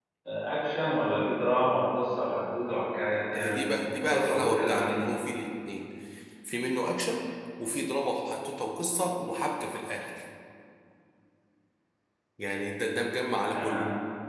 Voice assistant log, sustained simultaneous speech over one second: present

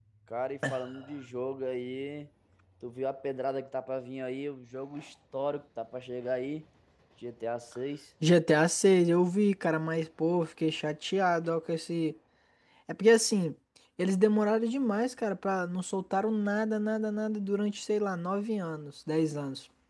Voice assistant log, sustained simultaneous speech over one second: none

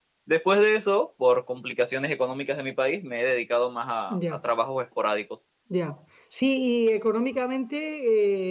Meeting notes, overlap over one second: none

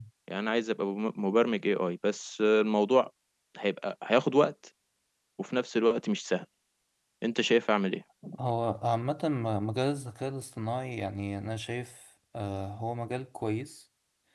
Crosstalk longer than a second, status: none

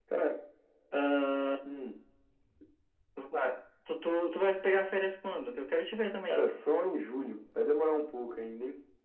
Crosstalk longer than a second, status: none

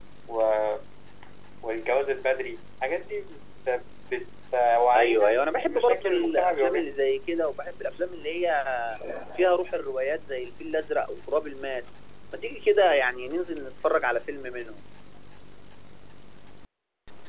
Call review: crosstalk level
present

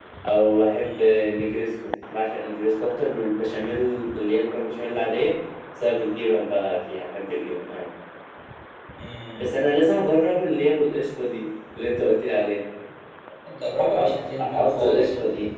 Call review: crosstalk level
present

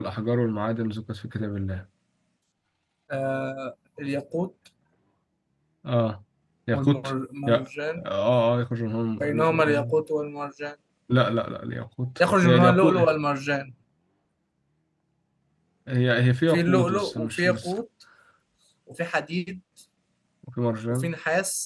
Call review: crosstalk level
present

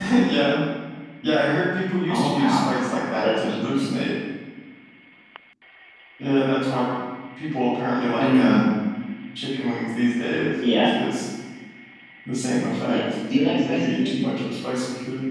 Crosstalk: present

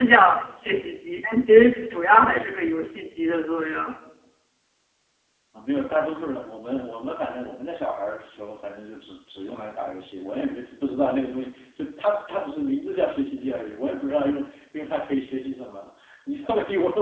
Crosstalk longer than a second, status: none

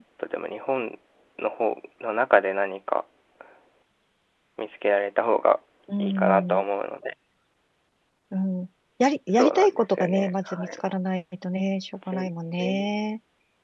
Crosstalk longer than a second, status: present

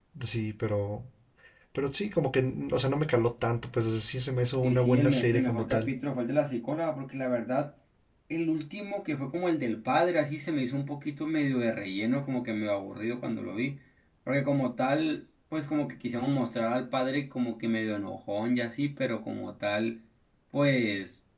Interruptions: present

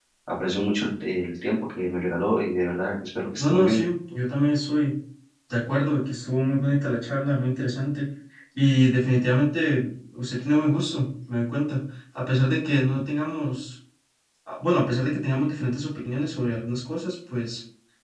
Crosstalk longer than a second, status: none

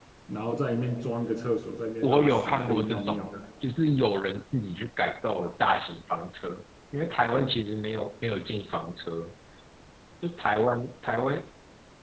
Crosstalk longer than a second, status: present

